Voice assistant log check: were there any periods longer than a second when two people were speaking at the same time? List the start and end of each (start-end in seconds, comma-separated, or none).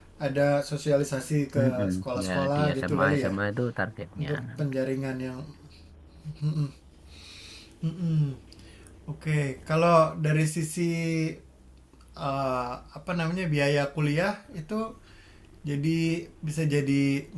1.6-3.3